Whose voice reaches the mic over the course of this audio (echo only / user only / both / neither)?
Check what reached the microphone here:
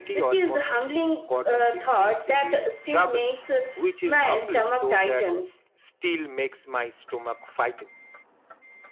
echo only